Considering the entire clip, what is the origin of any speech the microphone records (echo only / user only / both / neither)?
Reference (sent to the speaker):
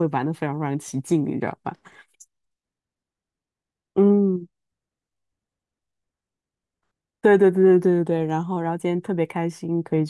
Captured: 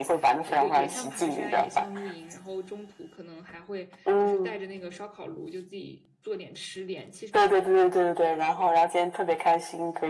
both